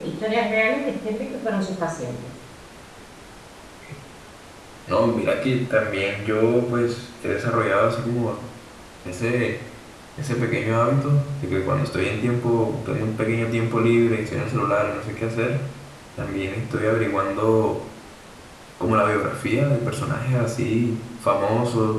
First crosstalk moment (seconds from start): none

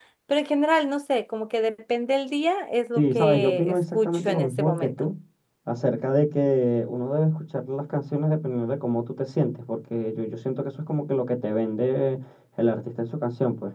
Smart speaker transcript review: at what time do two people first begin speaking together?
3.0 s

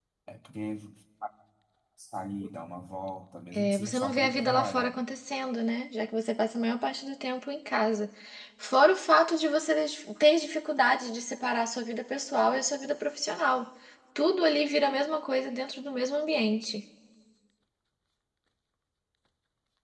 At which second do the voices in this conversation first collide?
3.5 s

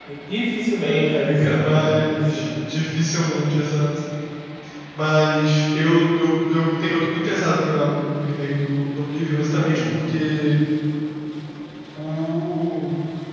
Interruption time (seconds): 0.8 s

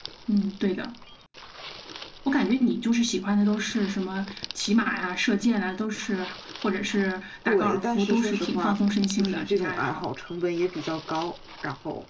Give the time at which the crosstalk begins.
7.4 s

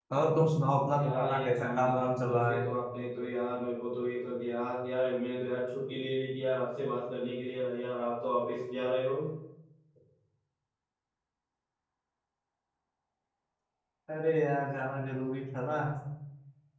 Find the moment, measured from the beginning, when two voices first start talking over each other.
1.0 s

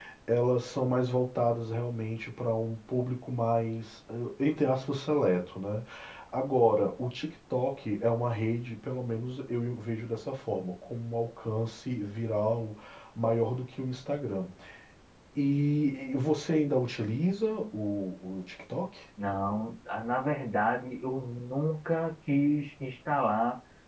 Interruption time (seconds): none

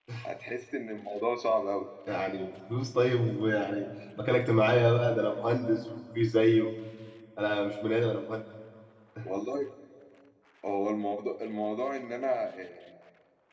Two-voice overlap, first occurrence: none

